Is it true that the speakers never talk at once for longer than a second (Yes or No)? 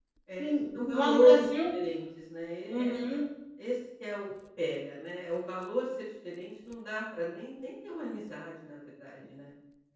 No